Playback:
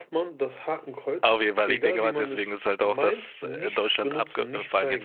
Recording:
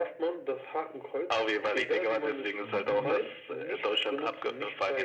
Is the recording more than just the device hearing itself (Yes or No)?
Yes